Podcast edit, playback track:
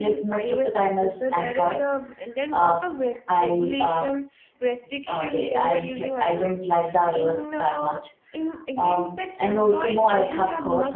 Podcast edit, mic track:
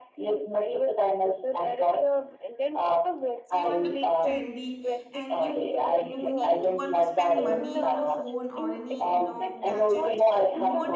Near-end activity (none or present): present